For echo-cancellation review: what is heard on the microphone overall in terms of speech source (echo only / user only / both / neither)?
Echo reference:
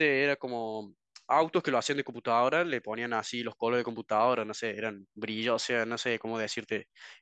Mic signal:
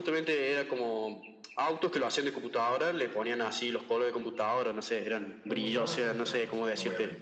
both